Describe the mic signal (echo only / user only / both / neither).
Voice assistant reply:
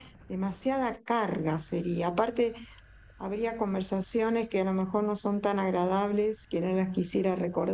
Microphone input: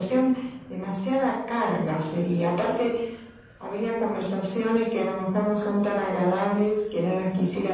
echo only